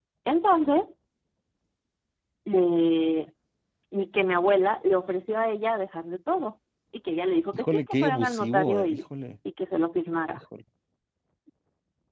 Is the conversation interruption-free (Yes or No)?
No